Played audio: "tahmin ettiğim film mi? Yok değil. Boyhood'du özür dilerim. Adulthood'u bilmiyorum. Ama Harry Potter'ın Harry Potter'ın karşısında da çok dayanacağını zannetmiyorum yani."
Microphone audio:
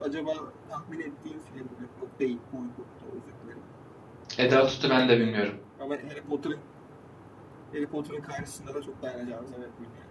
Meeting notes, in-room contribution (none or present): present